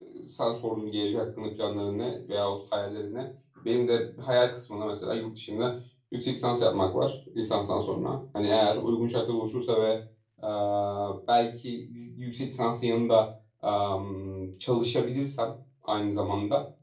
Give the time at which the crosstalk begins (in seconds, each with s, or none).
none